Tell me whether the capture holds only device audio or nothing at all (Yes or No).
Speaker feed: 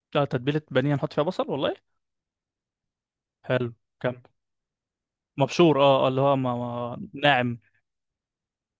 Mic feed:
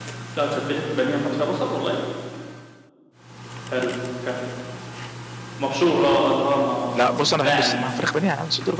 No